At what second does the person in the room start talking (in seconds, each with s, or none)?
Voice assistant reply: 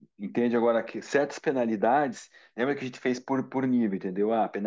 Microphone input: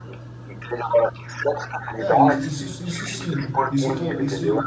2.0 s